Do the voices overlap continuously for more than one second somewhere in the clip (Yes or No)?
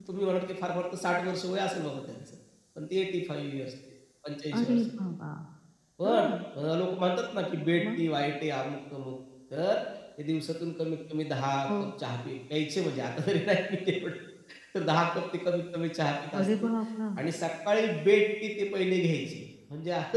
No